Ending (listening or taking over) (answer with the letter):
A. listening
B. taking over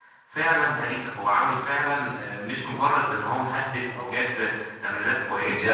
B